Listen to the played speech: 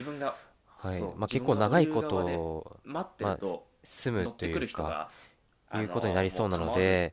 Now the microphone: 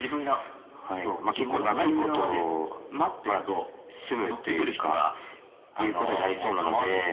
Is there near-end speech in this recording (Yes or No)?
No